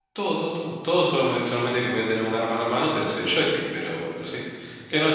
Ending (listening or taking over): listening